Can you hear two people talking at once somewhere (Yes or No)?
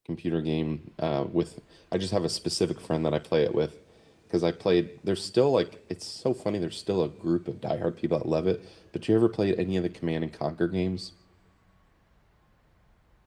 No